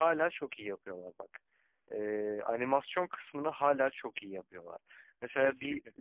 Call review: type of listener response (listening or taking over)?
listening